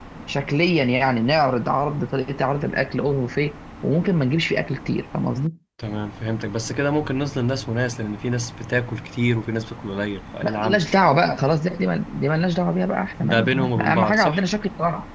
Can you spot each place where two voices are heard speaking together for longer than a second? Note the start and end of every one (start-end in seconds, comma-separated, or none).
13.2-14.4